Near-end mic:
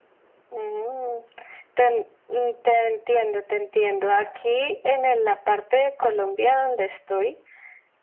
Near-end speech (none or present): none